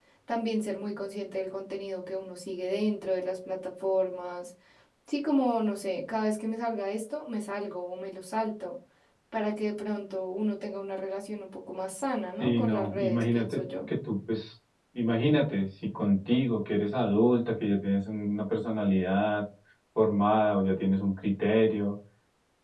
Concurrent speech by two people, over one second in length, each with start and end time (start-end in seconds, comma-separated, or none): 12.4-13.6